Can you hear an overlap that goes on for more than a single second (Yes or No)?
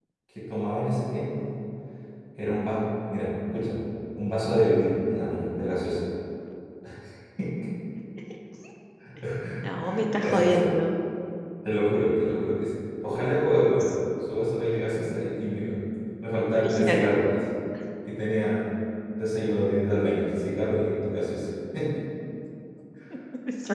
No